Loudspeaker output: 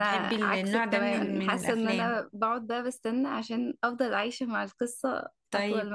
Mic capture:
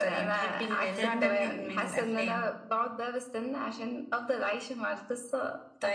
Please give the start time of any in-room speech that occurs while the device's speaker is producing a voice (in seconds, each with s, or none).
0.8 s